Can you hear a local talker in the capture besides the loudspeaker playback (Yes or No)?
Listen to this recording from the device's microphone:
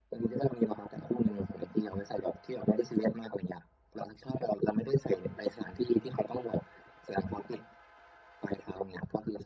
No